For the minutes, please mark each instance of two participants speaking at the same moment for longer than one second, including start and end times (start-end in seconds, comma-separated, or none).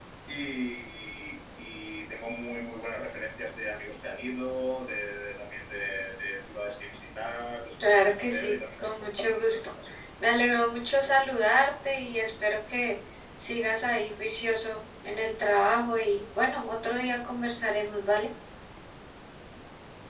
7.8-9.6